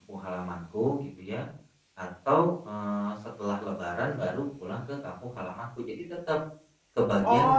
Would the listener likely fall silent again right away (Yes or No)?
No